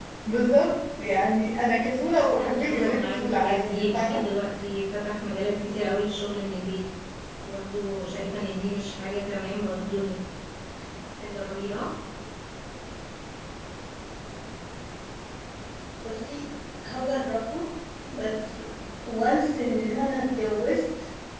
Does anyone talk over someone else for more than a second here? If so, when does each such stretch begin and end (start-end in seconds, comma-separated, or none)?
2.1-4.2